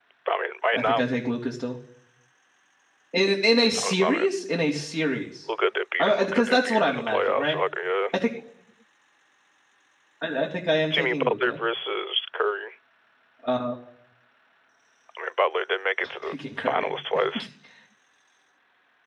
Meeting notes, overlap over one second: present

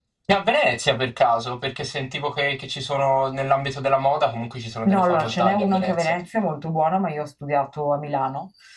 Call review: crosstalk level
present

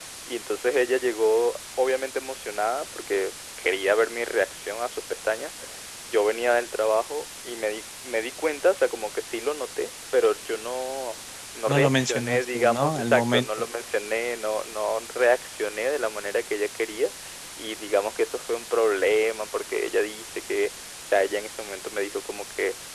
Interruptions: present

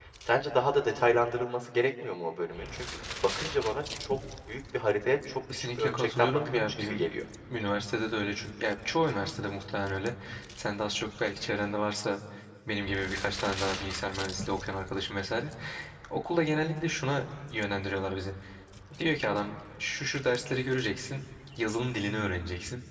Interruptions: present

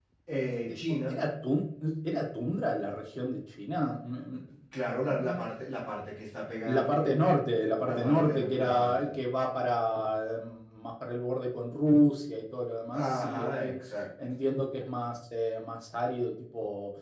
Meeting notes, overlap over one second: present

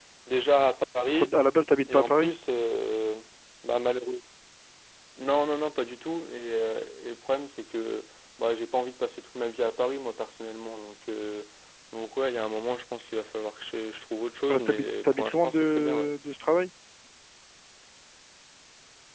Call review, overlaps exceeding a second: present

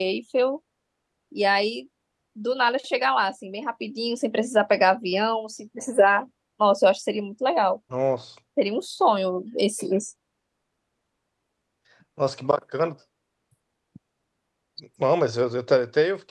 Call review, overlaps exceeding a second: none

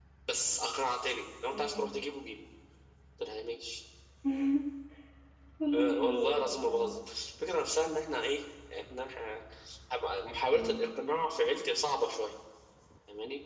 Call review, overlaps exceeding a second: present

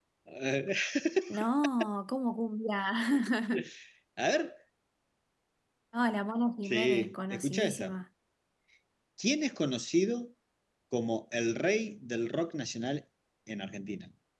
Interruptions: present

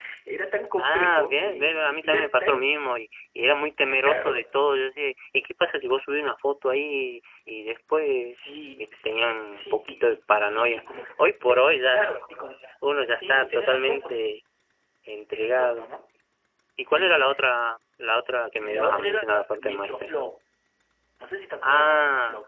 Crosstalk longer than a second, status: present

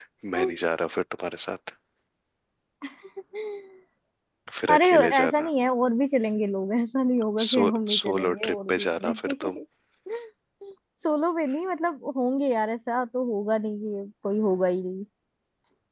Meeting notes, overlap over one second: present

